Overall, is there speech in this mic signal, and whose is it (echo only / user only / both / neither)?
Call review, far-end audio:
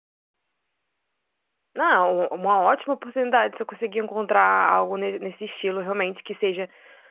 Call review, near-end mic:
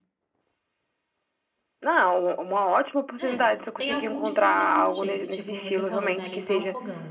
both